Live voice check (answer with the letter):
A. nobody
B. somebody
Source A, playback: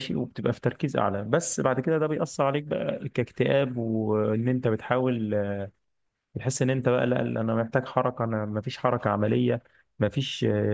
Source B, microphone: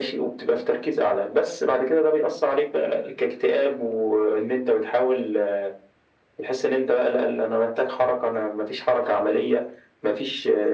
A